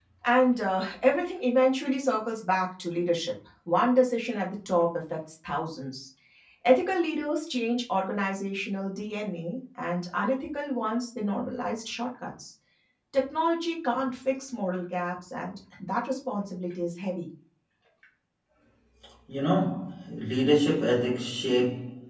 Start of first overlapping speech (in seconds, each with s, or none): none